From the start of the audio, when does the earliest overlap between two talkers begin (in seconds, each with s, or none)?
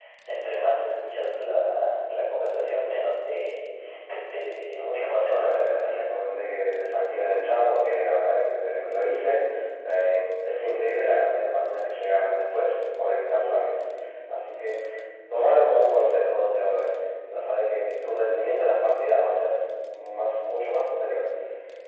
4.7 s